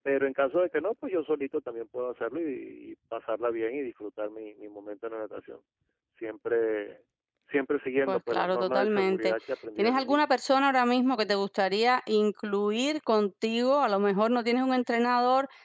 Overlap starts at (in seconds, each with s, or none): 8.1 s